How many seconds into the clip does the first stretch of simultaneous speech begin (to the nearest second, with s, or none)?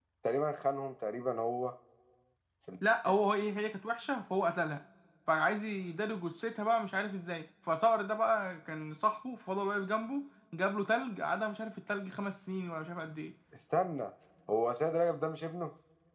none